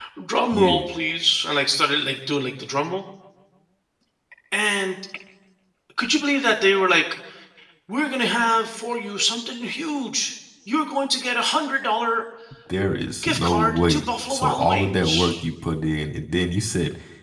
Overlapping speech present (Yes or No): Yes